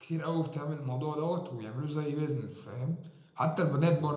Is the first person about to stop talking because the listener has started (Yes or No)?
No